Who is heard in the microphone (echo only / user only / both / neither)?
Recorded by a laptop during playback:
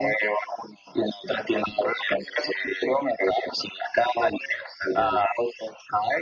echo only